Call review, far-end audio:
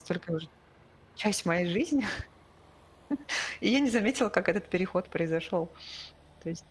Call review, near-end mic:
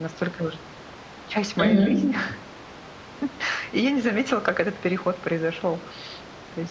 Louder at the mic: user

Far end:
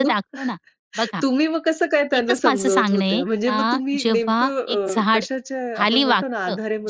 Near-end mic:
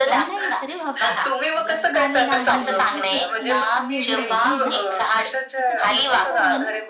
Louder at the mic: echo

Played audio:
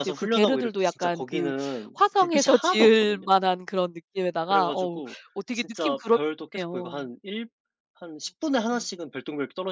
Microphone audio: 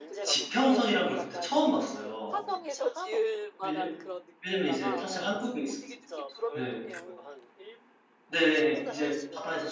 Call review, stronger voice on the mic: user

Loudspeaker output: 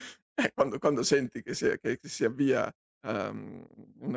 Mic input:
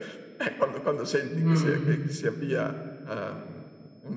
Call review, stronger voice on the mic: user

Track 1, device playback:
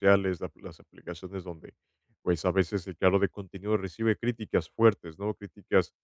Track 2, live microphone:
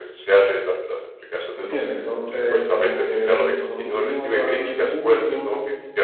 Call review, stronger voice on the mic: user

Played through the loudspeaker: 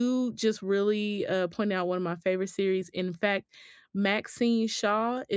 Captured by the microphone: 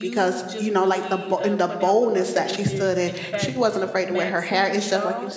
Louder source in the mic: user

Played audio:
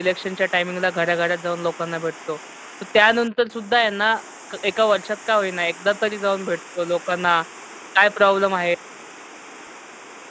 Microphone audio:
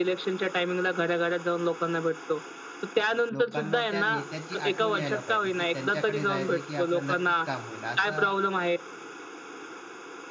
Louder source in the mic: echo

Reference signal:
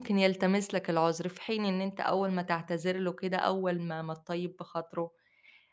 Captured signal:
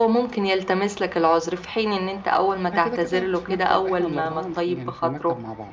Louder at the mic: echo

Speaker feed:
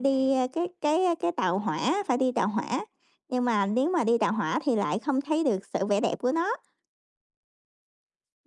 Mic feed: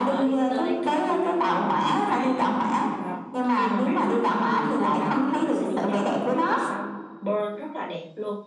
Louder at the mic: echo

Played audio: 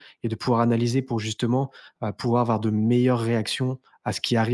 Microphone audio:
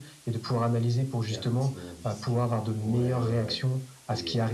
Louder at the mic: echo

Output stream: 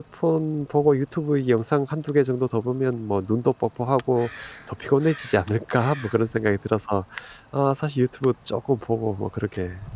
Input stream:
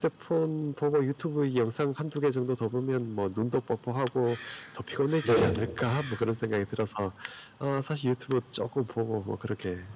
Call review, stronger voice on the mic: user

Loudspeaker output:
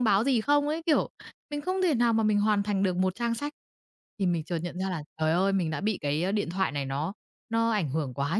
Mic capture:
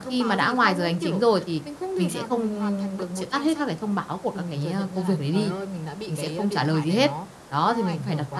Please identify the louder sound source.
user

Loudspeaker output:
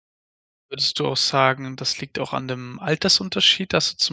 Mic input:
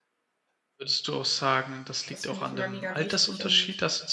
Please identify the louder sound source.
echo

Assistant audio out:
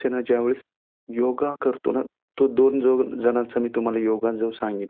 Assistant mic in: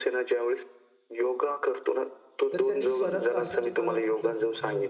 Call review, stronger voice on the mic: echo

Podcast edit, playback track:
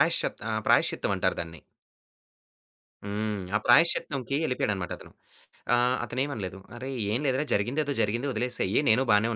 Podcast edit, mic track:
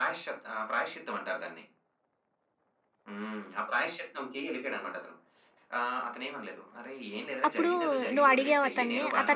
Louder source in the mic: user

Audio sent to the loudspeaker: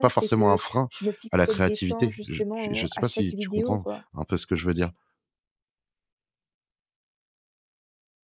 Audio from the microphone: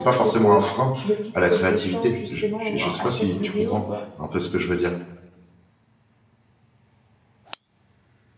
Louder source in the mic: echo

